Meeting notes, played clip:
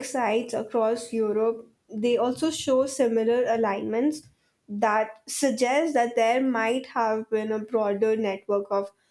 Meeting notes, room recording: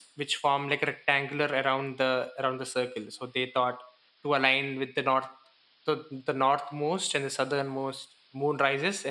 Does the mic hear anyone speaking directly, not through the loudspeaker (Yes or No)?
Yes